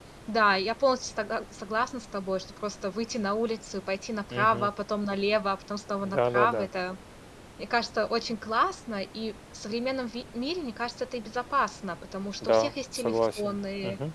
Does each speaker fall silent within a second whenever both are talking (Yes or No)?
No